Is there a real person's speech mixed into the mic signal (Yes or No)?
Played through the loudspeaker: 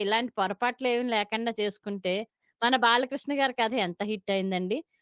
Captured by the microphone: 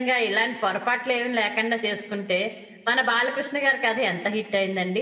No